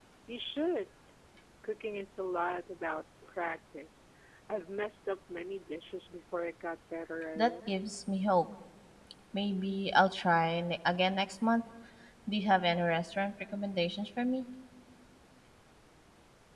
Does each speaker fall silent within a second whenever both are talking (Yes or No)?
Yes